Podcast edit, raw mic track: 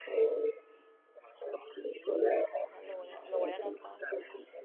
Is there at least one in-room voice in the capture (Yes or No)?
Yes